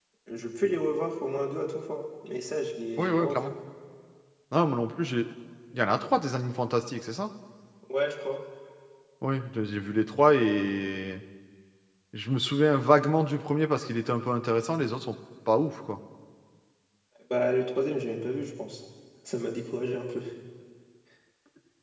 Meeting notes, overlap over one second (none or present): none